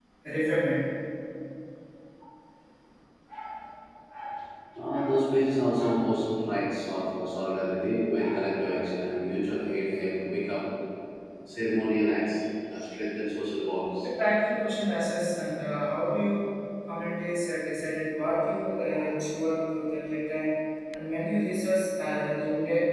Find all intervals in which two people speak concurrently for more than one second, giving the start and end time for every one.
none

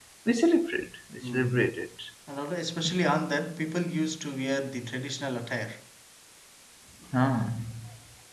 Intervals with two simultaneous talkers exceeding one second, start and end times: none

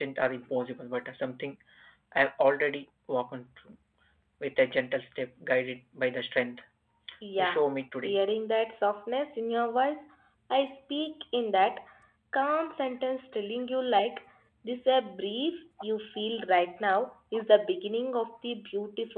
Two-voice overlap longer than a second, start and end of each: none

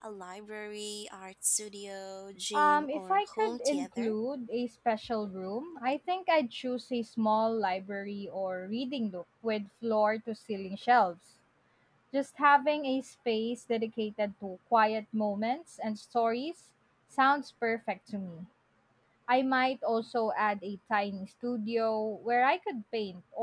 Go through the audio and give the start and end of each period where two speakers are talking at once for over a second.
2.5-4.1

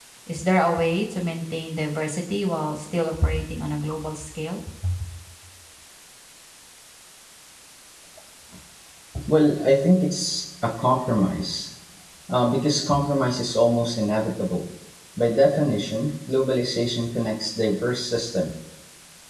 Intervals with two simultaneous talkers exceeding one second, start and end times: none

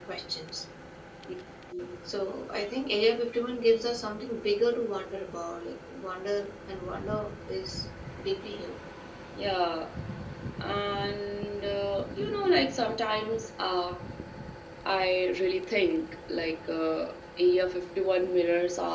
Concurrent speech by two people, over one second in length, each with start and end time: none

